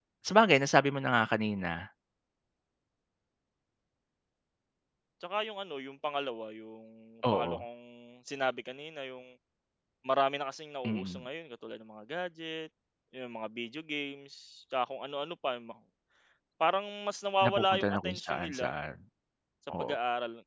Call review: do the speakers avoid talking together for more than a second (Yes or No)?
No